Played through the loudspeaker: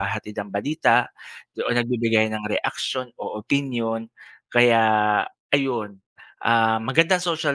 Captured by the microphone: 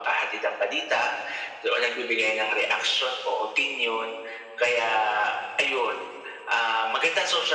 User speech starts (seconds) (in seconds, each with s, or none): none